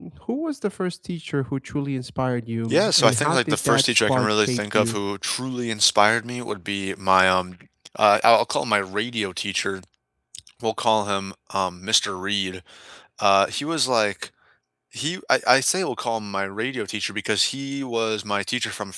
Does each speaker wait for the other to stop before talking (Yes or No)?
No